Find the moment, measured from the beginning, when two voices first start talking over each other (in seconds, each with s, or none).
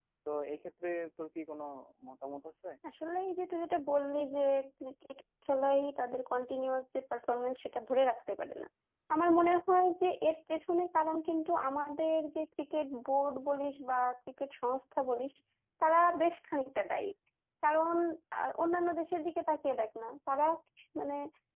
none